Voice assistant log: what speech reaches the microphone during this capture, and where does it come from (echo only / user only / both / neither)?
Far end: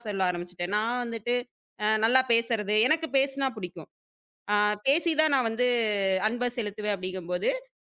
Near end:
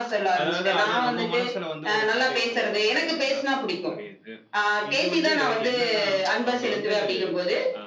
both